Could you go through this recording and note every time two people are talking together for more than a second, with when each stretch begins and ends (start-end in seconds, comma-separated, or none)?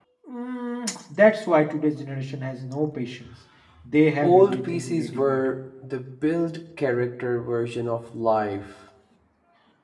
4.2-5.5